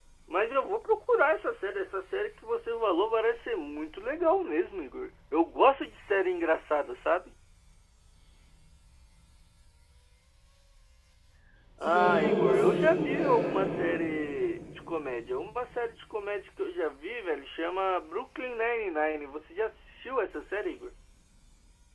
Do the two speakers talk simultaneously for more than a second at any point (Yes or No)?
Yes